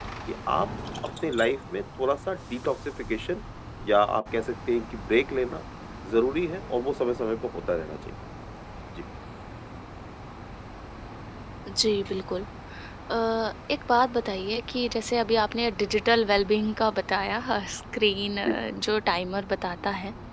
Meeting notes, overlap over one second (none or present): none